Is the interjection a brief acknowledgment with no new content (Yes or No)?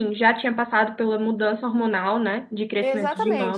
No